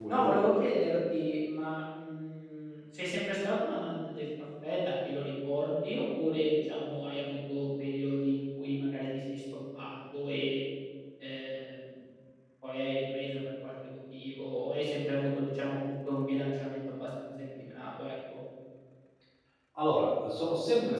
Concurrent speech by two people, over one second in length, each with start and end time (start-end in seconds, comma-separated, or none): none